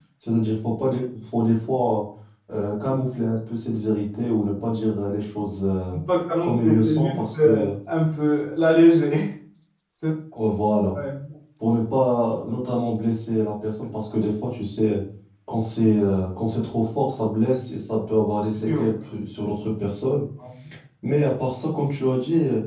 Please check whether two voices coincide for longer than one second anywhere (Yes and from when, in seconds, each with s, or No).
Yes, from 6.4 s